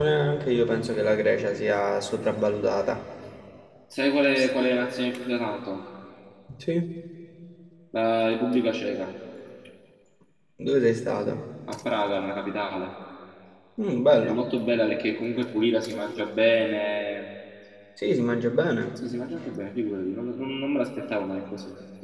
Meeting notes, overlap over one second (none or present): none